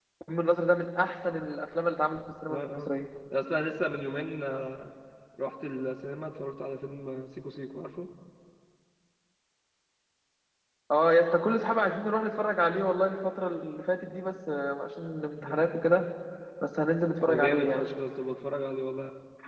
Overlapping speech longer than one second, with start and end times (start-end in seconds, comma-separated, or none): none